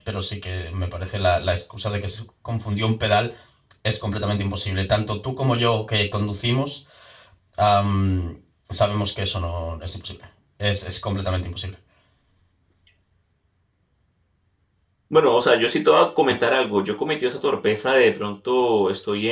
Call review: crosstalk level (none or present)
none